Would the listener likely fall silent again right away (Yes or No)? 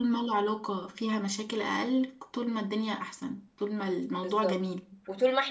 No